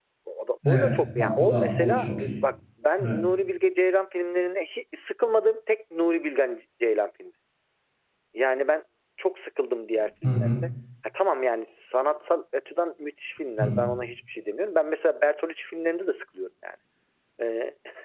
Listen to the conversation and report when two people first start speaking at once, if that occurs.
0.7 s

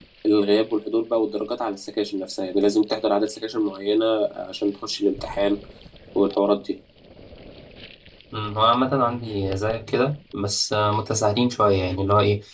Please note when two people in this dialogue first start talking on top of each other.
none

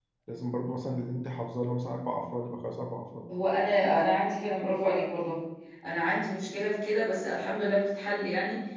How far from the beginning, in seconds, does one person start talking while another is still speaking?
none

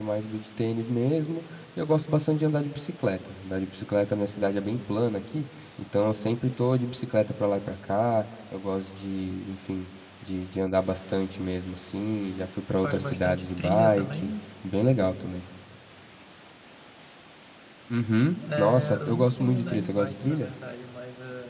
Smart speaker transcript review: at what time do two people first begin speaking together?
12.8 s

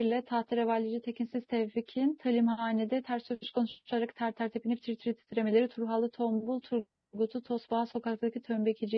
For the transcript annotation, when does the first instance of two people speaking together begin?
none

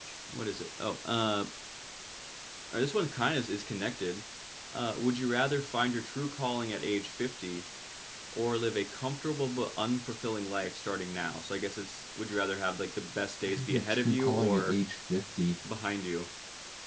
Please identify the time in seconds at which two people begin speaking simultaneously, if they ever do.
13.5 s

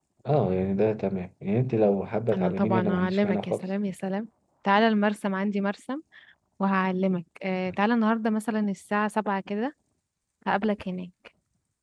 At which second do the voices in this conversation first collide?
2.3 s

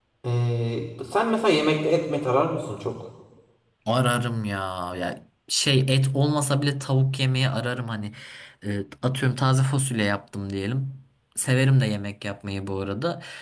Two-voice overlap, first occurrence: none

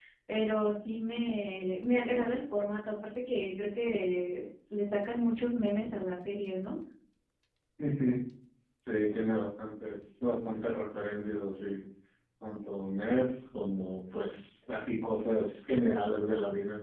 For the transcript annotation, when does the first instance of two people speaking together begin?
none

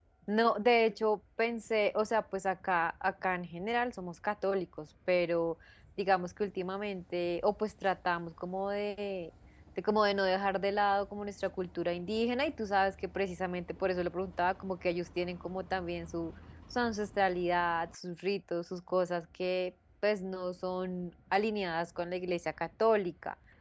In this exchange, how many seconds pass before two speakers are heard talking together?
none

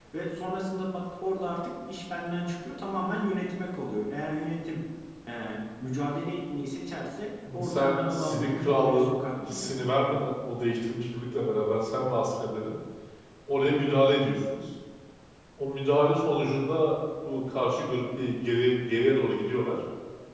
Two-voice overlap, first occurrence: 7.4 s

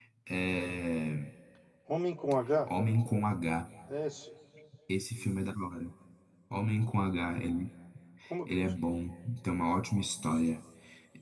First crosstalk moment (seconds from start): none

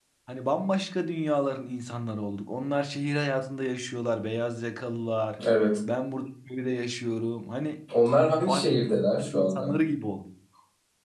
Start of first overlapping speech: 8.5 s

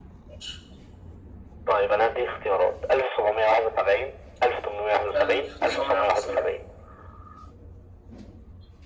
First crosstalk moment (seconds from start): 5.1 s

